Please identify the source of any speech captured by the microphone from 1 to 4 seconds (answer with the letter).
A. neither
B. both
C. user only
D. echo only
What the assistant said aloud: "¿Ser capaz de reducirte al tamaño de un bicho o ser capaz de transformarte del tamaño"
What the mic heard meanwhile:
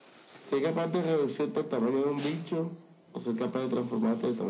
D